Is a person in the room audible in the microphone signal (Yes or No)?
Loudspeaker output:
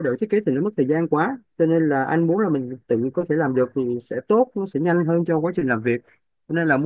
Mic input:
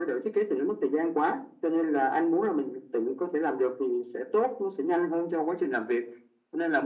No